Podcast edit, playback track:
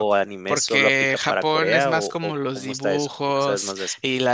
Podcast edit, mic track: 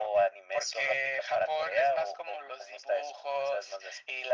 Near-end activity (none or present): none